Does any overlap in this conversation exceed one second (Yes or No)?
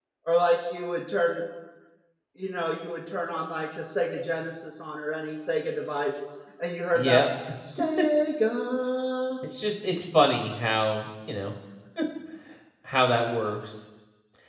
No